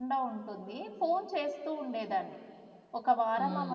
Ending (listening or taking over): listening